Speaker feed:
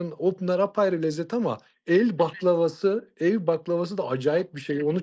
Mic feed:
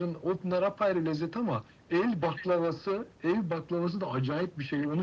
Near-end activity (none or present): none